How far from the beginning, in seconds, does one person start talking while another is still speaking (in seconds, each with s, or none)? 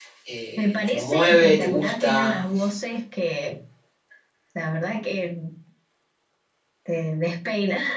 0.6 s